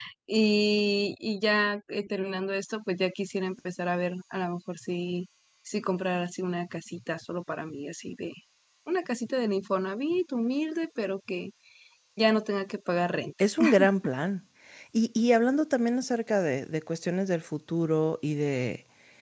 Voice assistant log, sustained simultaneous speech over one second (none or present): none